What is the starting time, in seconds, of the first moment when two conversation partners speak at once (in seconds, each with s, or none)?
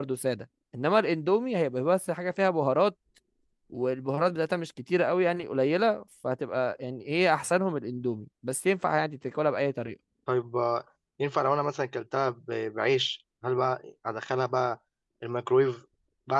none